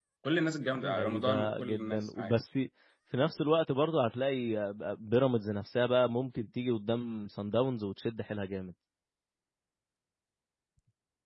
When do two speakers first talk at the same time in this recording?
0.7 s

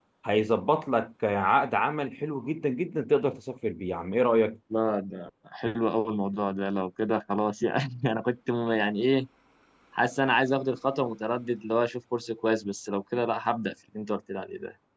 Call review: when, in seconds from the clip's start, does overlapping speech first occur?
none

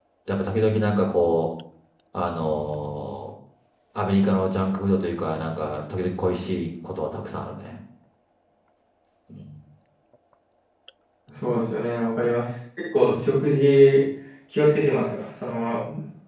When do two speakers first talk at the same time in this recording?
none

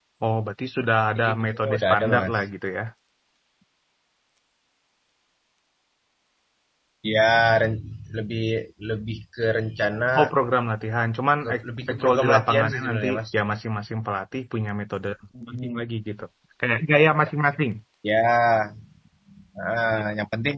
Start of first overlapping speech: 1.2 s

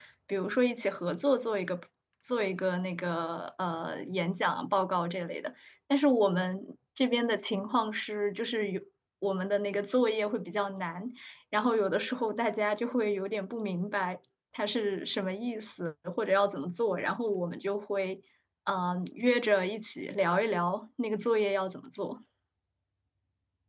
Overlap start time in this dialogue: none

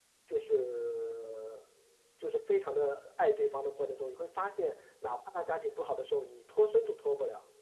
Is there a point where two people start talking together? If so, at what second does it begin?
none

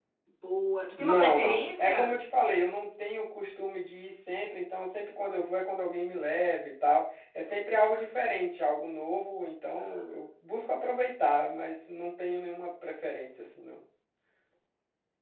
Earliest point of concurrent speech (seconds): 1.0 s

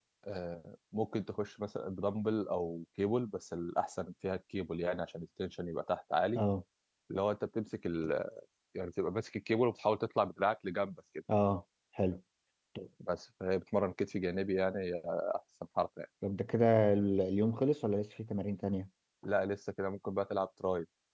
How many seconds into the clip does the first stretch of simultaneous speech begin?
none

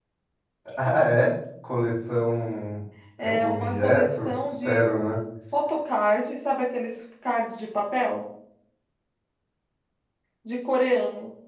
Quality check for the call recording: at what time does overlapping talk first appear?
3.2 s

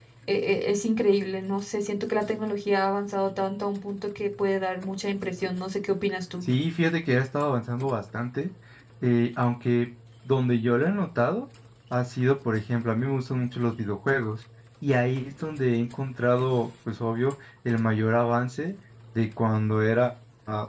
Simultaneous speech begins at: none

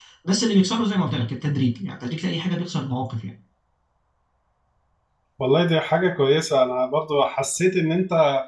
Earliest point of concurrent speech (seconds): none

